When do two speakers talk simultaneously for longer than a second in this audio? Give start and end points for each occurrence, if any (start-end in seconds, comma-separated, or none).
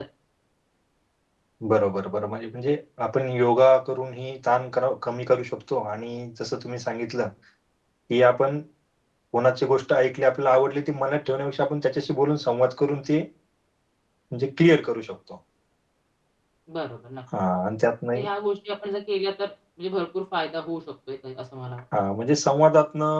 none